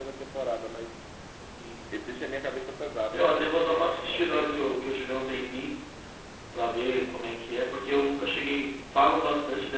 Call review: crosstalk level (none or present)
present